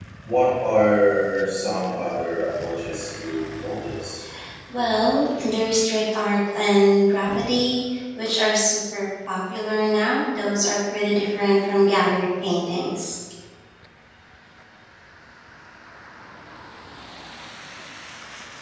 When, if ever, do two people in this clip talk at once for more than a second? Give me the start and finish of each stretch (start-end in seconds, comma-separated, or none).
none